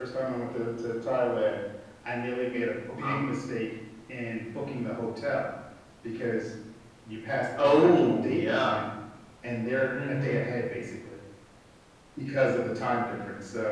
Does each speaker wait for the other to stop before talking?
No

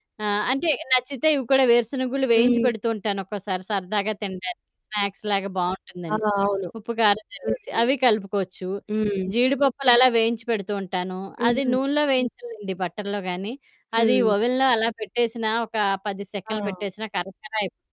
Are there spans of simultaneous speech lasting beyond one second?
No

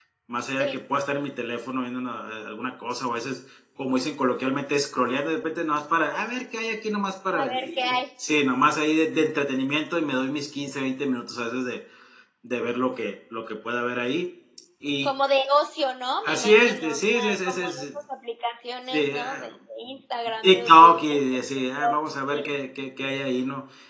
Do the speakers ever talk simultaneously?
Yes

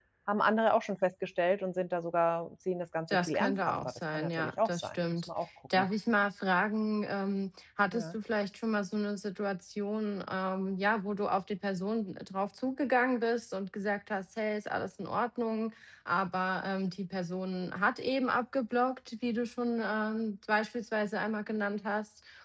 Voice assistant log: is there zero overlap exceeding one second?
No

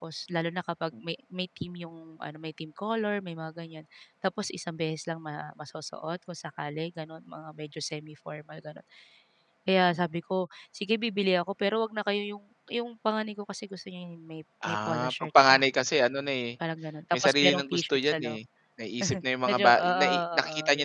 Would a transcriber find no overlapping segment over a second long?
No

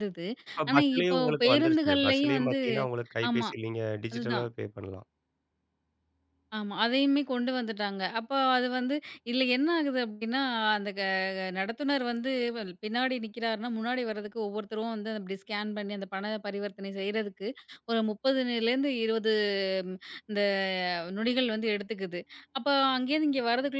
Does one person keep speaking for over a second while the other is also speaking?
Yes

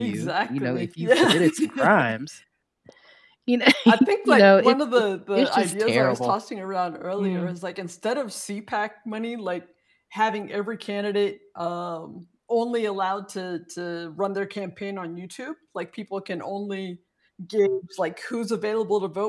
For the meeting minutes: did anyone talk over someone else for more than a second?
Yes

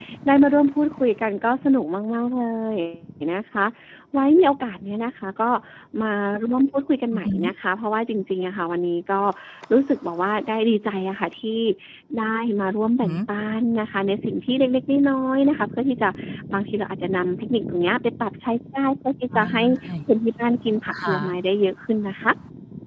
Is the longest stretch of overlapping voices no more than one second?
Yes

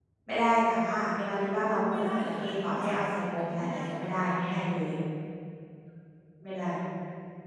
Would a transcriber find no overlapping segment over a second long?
No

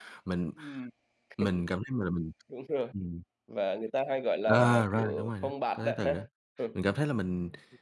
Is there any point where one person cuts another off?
Yes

